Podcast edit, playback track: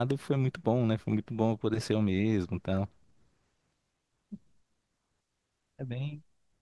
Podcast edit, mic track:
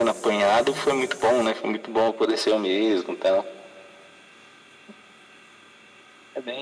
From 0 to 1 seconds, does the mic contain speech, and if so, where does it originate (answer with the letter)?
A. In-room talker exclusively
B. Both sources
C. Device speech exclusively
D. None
B